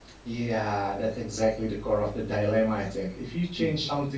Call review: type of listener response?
listening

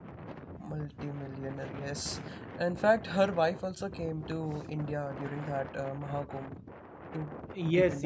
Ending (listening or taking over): taking over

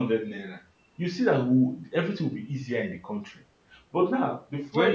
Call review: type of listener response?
listening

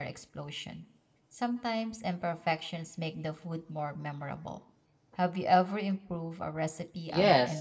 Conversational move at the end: taking over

